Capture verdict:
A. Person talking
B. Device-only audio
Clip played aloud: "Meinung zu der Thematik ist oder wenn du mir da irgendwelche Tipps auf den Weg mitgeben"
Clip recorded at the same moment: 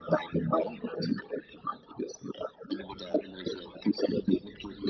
B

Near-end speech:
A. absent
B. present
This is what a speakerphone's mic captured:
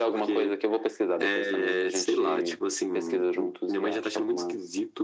A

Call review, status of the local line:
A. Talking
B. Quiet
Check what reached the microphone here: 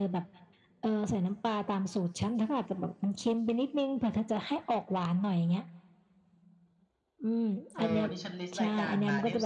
A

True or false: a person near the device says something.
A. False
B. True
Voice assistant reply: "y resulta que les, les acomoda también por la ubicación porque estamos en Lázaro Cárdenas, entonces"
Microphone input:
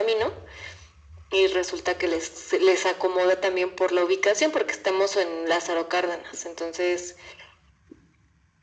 A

